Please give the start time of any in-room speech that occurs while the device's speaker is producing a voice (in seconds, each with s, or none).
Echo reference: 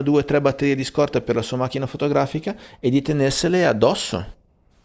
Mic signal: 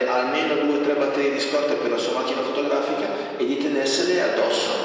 none